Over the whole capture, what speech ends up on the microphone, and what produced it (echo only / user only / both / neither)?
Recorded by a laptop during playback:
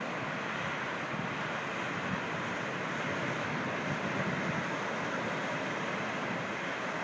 neither